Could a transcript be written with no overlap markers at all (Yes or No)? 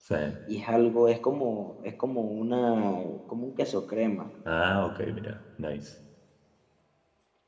Yes